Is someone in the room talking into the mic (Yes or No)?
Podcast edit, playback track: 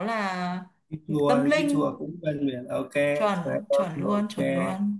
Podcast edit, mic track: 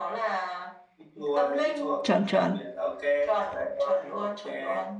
Yes